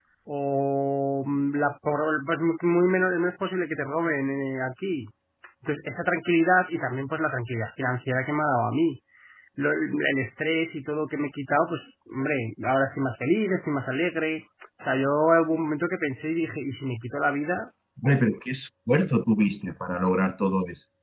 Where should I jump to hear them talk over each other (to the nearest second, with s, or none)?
none